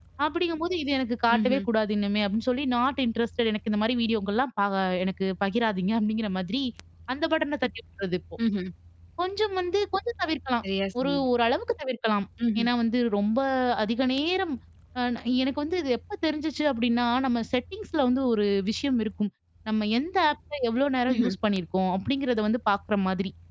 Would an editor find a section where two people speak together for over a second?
No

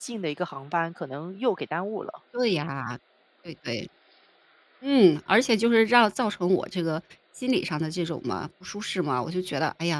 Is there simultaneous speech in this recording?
No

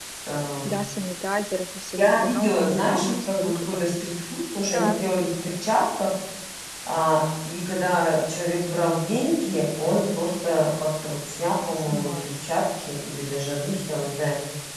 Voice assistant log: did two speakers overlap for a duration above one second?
Yes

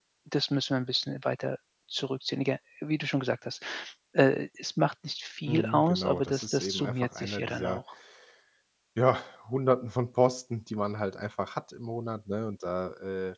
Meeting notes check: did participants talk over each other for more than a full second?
Yes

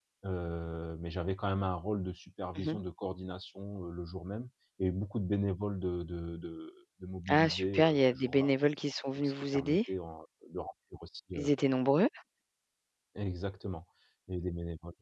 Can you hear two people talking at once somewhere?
Yes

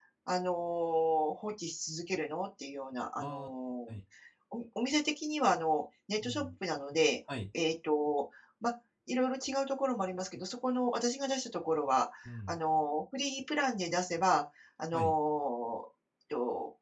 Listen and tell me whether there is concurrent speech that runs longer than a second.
No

